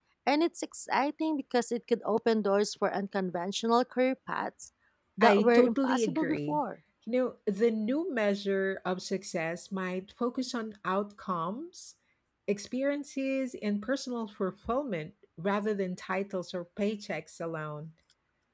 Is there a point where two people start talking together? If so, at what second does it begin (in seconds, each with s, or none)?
5.2 s